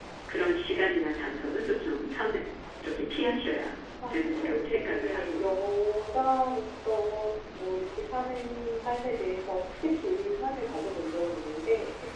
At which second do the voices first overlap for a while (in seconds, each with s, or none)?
4.0 s